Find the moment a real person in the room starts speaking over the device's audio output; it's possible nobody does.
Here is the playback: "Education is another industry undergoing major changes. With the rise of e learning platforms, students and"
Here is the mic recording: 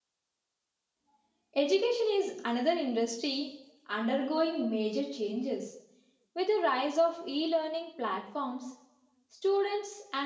none

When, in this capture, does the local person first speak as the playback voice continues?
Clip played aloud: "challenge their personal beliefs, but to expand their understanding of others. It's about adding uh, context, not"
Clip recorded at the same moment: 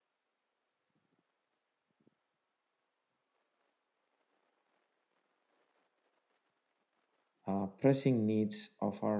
7.5 s

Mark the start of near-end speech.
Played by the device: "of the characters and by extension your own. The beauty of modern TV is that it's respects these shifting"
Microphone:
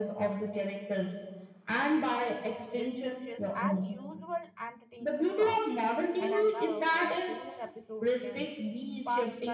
2.7 s

